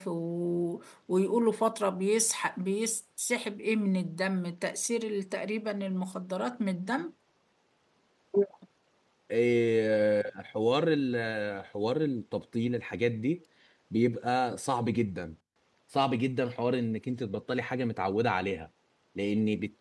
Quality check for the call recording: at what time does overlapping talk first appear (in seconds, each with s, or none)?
none